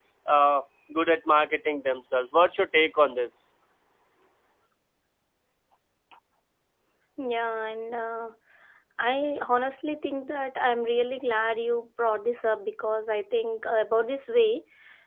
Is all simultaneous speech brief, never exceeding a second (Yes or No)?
Yes